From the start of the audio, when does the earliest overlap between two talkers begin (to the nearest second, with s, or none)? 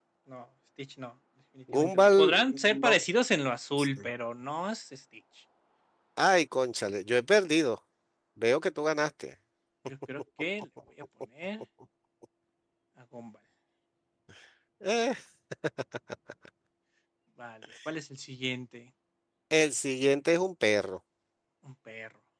2 s